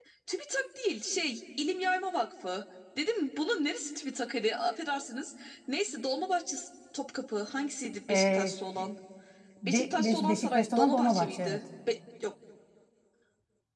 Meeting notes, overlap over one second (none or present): present